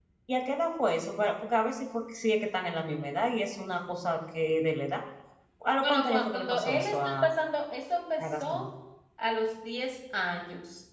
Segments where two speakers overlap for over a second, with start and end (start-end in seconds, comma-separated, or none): 5.8-7.2